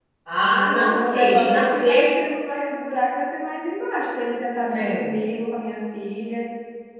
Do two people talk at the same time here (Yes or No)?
Yes